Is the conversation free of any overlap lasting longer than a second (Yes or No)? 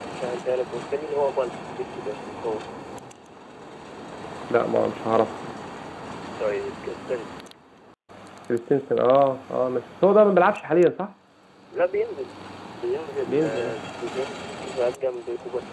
Yes